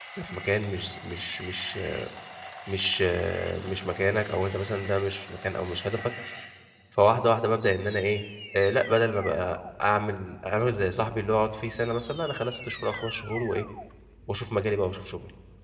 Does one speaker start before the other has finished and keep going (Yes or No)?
No